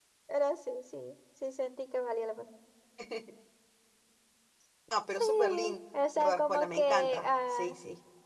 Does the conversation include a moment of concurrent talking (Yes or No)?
Yes